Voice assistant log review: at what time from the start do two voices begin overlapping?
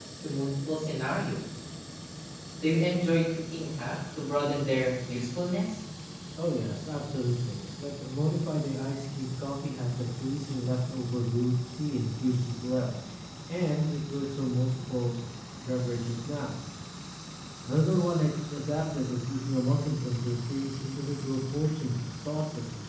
none

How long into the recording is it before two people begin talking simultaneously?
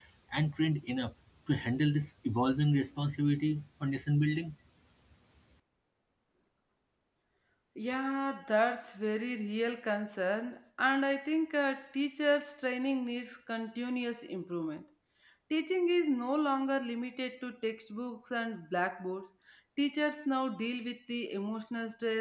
none

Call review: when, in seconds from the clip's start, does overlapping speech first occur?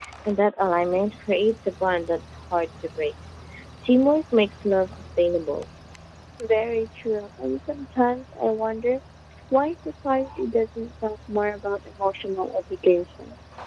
none

